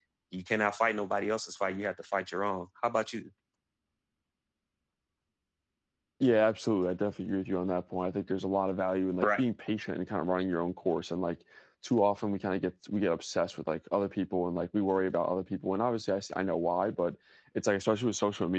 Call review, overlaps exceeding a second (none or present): none